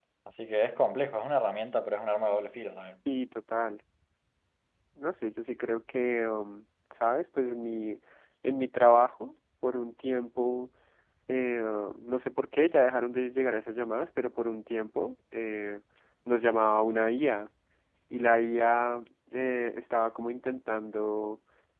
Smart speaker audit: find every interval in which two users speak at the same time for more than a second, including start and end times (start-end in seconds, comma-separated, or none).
none